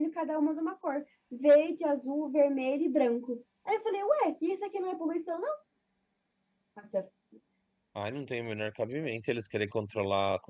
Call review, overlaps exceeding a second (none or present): none